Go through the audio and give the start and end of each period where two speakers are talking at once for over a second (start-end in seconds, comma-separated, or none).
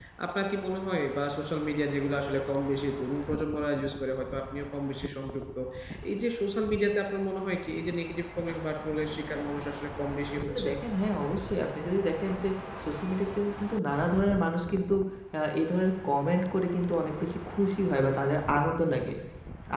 none